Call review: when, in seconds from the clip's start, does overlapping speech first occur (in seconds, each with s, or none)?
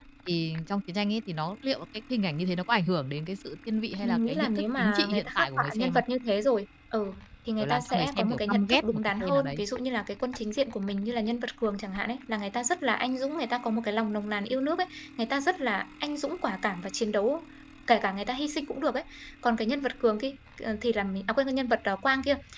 4.0 s